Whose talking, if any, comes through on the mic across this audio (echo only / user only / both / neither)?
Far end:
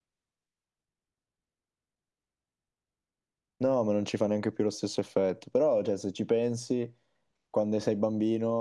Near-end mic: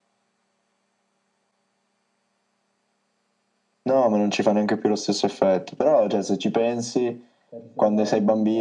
both